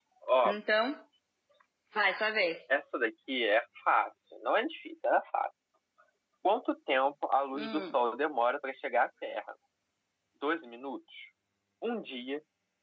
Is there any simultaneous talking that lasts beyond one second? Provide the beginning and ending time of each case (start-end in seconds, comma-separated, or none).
none